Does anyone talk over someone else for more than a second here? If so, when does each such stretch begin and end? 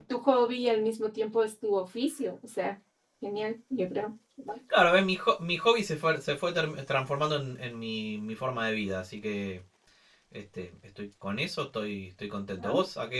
none

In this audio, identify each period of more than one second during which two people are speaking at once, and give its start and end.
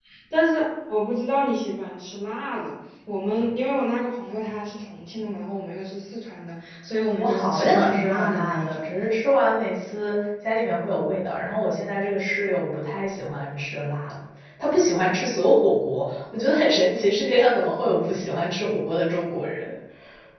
7.2-8.8

